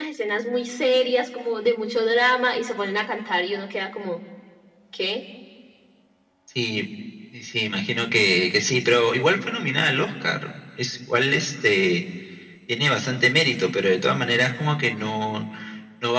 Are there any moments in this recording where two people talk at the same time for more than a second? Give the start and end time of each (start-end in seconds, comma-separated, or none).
none